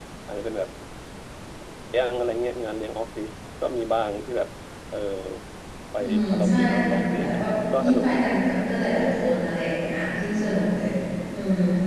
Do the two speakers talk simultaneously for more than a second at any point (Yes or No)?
Yes